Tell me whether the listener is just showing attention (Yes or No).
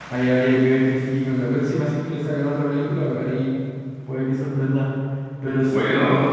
Yes